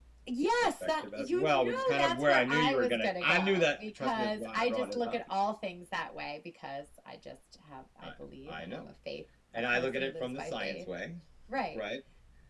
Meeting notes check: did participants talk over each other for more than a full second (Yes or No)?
Yes